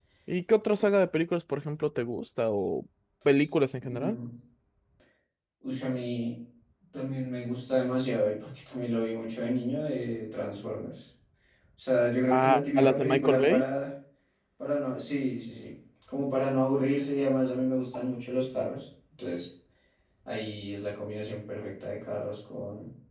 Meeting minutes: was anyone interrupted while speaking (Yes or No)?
Yes